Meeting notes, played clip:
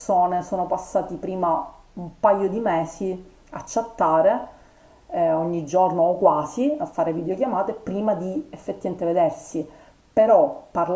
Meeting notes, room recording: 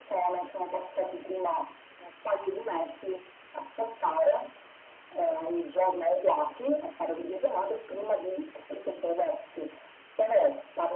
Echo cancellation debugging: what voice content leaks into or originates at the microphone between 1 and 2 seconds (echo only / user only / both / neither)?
echo only